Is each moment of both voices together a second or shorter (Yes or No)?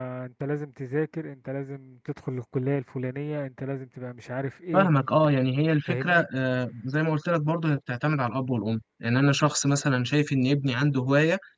Yes